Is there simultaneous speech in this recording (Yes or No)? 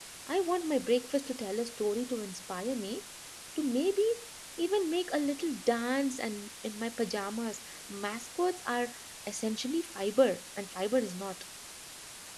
No